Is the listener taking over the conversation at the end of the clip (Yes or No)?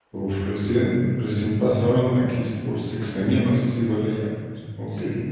Yes